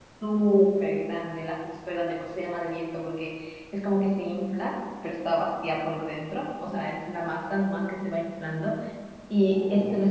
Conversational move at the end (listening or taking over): listening